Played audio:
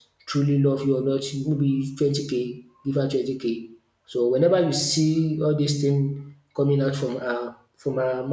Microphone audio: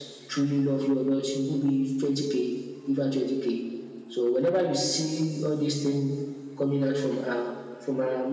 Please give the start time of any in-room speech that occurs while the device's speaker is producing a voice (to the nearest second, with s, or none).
none